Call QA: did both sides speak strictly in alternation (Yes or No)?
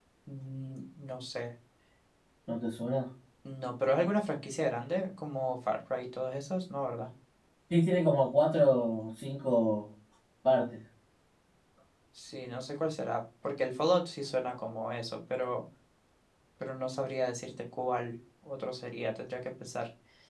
Yes